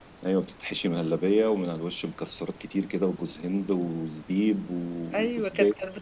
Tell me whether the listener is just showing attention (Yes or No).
No